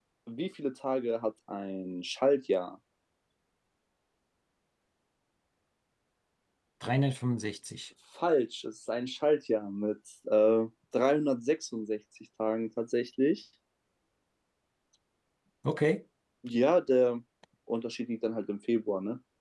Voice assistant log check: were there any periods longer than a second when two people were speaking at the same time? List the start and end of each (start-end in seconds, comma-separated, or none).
none